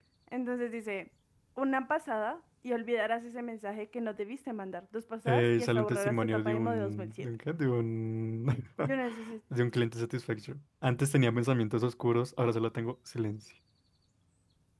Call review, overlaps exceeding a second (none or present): present